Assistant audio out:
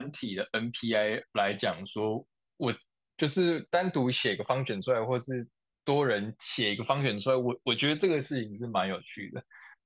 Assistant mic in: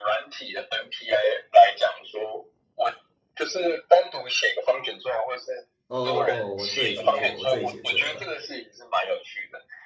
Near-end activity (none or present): present